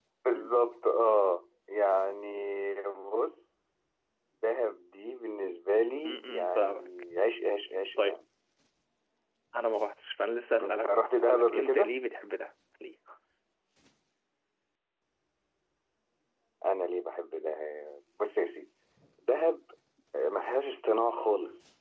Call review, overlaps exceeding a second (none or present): present